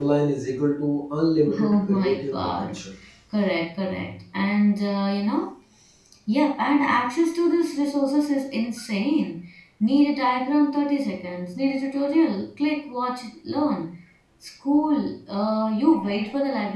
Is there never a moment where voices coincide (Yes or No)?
No